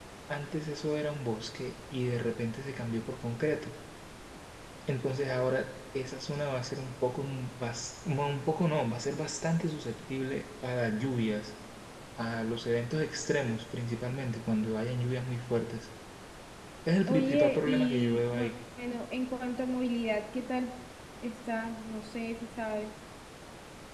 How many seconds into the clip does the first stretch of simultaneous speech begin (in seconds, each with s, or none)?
17.1 s